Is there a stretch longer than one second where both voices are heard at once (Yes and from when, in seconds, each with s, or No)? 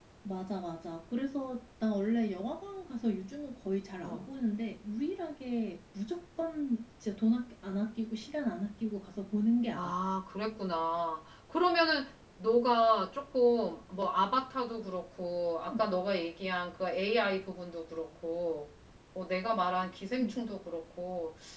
No